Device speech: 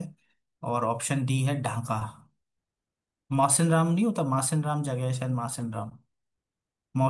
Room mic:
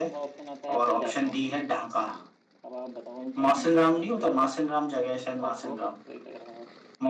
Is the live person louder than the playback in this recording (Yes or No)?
No